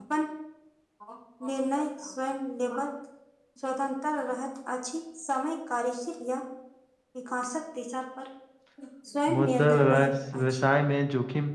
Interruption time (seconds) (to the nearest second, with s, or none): 9 s